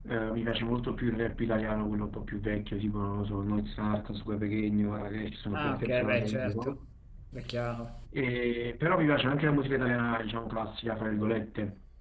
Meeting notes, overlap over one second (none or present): present